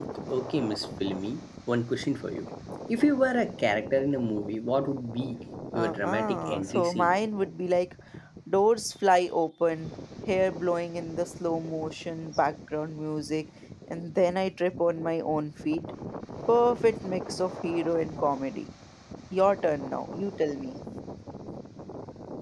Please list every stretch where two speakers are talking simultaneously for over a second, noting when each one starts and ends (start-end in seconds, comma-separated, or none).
5.7-7.1